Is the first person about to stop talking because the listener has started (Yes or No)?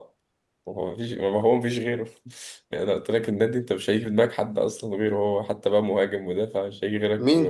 Yes